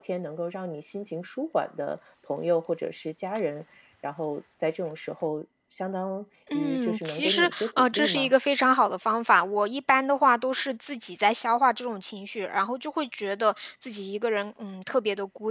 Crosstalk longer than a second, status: present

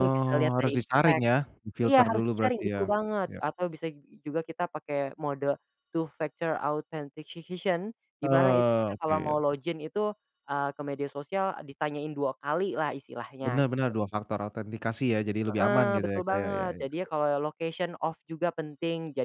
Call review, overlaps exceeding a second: present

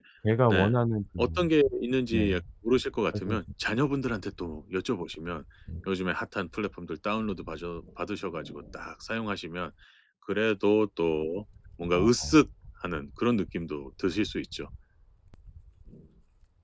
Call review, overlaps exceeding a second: none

